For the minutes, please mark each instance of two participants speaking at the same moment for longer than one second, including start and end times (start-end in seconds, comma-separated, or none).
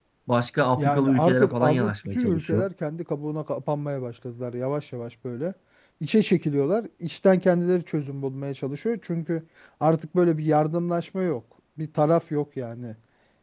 0.8-2.7